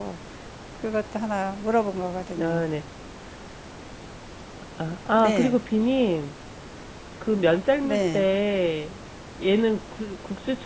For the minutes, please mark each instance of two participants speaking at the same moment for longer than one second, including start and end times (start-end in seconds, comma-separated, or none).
none